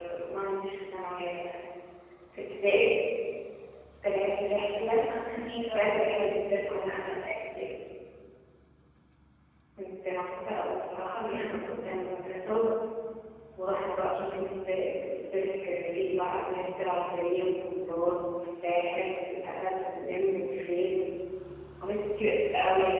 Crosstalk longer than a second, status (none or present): none